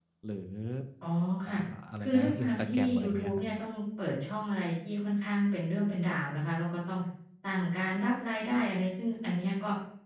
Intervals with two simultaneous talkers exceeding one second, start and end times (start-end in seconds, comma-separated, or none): 2.0-3.5